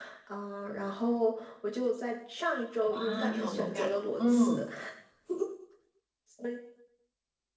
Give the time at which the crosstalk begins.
2.9 s

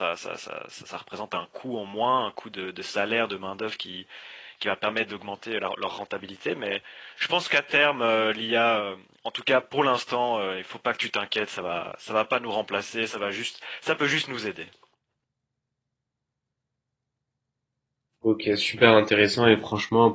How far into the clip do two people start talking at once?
none

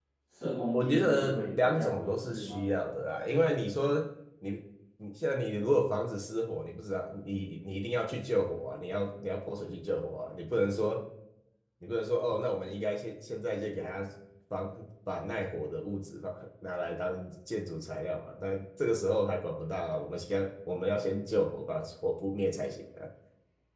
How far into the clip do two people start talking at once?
0.7 s

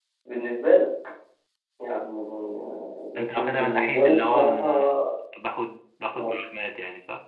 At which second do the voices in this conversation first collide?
3.2 s

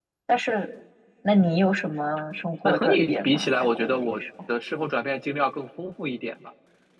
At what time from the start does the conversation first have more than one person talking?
2.6 s

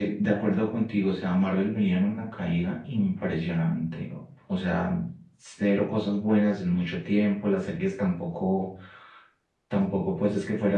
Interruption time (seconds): none

